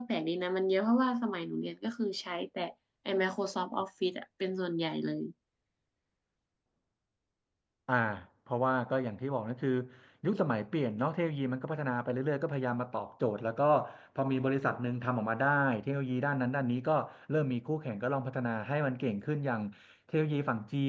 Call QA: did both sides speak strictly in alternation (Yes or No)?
Yes